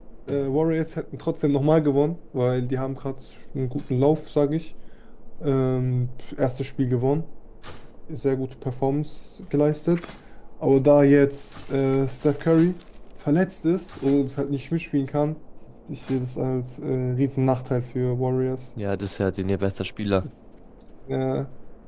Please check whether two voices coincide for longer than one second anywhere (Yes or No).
No